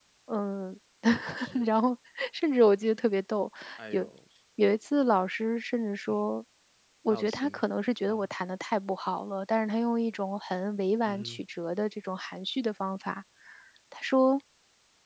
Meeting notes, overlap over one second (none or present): none